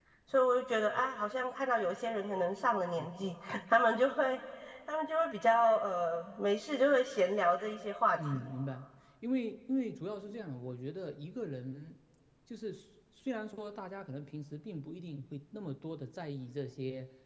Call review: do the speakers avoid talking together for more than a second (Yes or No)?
Yes